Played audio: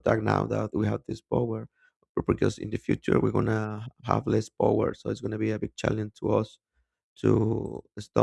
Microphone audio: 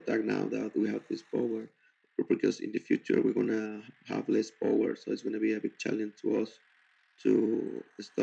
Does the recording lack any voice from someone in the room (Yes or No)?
Yes